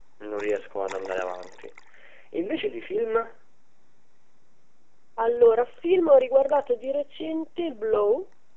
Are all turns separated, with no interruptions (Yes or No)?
Yes